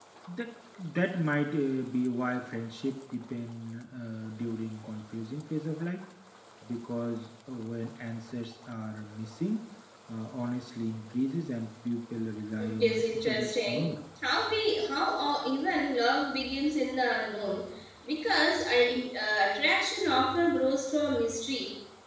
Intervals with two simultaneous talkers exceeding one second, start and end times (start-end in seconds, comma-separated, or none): 12.6-13.9